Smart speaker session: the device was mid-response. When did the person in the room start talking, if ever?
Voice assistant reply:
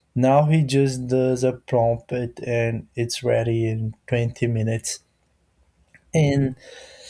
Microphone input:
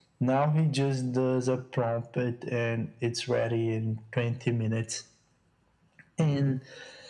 none

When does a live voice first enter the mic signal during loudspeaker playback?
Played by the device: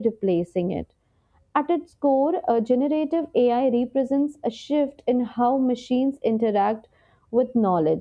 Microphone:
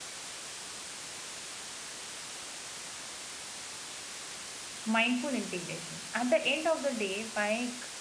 5 s

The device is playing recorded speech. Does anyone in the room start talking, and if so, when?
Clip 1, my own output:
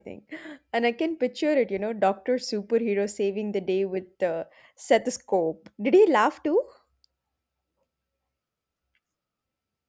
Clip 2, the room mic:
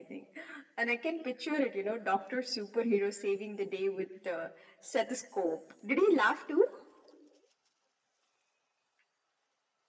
none

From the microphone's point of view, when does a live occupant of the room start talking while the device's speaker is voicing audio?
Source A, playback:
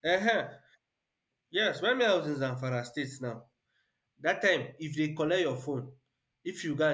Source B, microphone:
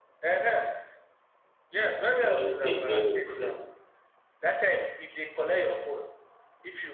2 s

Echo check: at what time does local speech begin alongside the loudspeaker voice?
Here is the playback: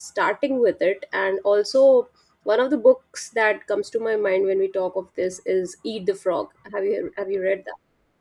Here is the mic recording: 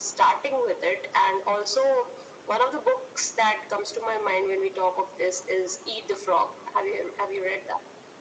none

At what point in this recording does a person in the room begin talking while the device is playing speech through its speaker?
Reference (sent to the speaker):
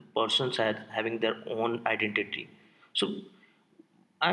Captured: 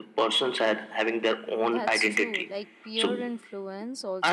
2 s

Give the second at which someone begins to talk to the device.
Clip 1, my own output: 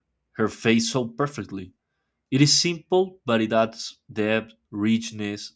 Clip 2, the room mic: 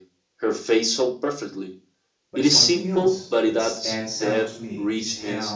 2 s

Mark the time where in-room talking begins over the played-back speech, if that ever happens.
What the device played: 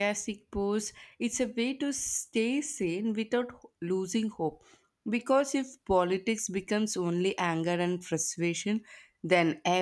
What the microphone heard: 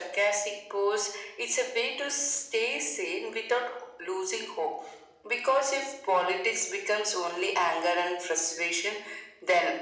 none

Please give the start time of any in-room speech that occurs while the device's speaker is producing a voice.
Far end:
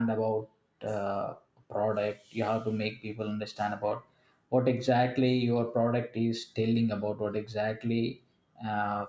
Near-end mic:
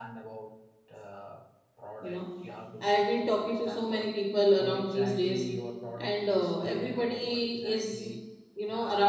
2 s

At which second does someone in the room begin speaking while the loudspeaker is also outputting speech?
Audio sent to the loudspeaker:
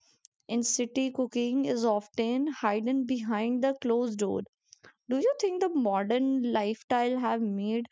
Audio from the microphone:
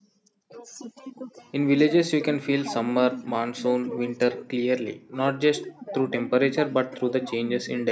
2 s

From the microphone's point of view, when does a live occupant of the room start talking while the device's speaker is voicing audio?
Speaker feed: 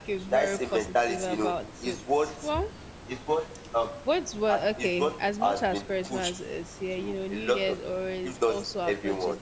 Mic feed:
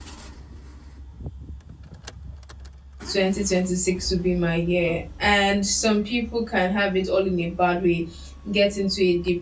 3 s

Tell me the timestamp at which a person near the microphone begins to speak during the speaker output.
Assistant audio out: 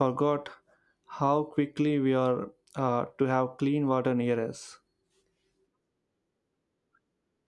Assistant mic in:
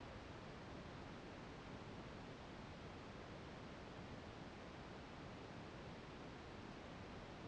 none

